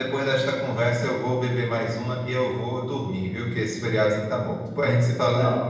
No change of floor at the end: No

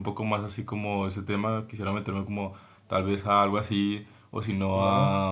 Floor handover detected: No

